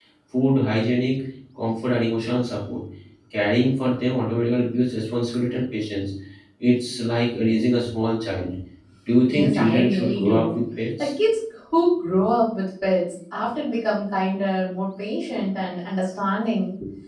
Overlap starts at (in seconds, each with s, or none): 9.3 s